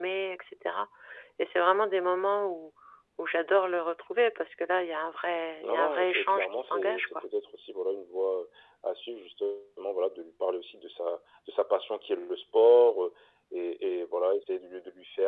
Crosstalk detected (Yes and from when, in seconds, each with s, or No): Yes, from 5.6 s